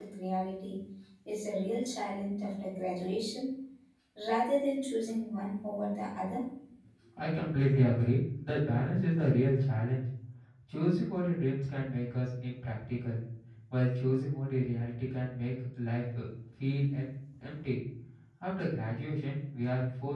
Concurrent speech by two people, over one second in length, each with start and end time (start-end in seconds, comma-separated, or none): none